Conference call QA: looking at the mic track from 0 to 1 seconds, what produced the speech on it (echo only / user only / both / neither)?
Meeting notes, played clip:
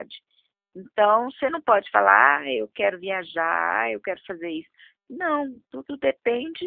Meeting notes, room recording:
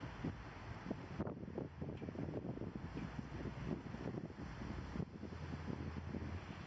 neither